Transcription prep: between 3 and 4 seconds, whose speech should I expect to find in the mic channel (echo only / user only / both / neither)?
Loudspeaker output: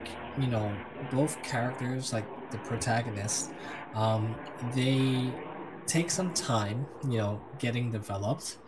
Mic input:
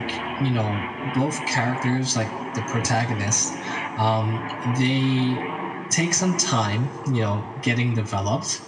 echo only